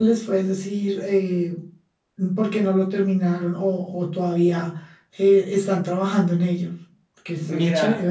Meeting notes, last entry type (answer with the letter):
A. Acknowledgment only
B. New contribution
B